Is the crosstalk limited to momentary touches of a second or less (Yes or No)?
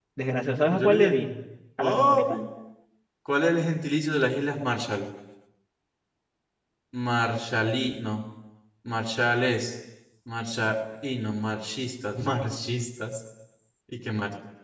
Yes